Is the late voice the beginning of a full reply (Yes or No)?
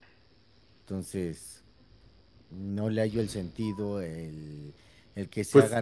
No